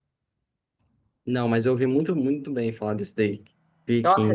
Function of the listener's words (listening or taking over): taking over